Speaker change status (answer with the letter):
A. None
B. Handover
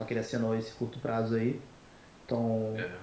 B